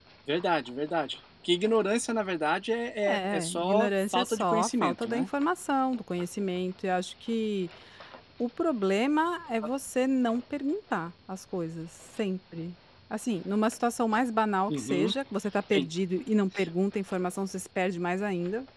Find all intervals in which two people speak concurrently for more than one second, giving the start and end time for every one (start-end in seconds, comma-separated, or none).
3.1-5.3